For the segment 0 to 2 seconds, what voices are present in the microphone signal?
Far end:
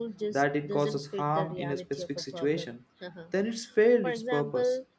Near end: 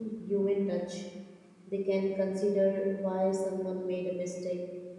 user only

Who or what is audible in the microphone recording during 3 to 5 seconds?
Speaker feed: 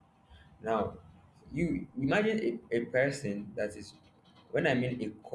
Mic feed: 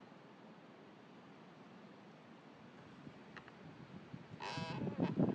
neither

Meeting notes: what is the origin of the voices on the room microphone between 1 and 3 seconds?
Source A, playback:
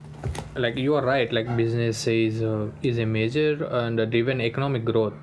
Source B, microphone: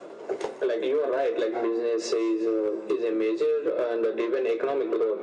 echo only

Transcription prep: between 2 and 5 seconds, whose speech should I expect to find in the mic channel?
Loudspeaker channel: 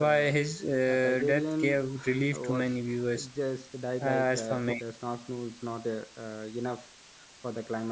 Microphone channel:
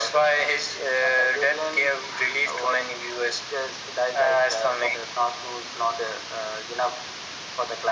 echo only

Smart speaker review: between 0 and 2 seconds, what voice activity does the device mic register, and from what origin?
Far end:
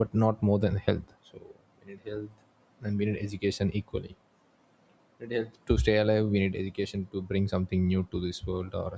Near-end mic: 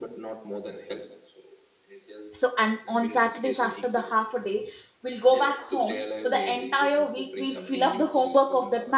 echo only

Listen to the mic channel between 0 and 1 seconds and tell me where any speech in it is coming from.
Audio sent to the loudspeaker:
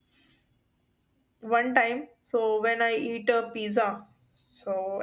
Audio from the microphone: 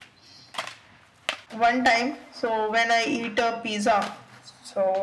neither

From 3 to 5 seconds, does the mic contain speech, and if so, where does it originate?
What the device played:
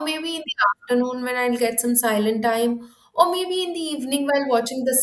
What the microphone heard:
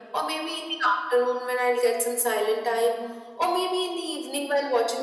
echo only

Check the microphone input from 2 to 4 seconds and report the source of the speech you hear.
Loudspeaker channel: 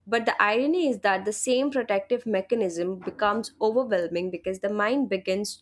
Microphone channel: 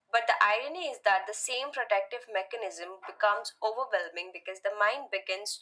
echo only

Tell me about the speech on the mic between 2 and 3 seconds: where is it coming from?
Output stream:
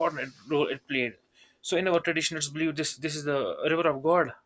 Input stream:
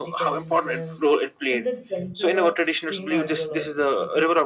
both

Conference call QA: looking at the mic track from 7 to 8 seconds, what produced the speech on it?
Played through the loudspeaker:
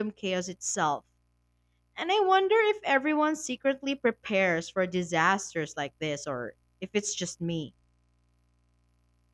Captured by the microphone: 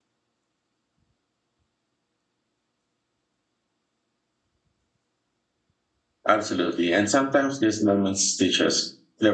user only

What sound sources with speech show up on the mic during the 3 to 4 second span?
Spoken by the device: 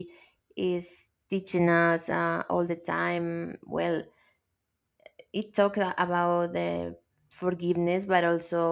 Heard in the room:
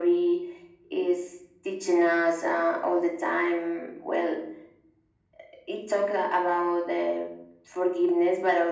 echo only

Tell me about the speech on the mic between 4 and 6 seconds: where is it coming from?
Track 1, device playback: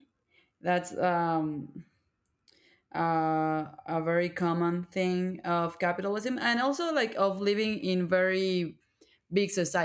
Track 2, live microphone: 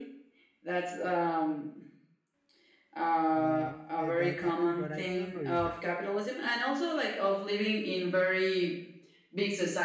both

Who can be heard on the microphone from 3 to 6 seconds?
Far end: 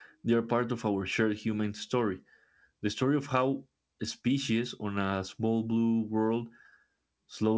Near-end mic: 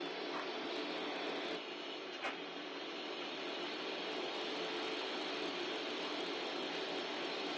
neither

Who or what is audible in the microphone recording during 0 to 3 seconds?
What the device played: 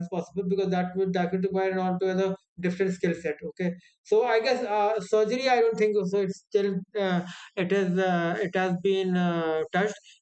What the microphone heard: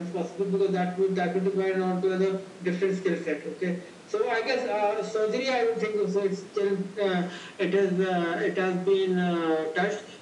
echo only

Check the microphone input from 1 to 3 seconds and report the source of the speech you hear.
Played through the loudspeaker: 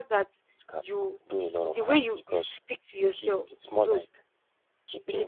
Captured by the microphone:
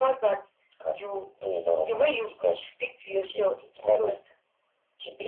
echo only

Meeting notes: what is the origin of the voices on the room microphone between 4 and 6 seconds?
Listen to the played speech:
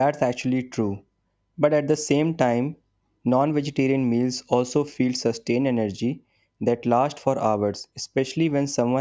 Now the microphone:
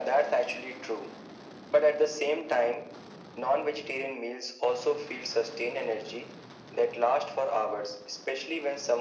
echo only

